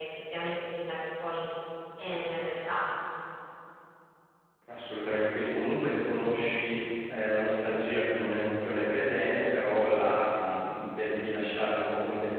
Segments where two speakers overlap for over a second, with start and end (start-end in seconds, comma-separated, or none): none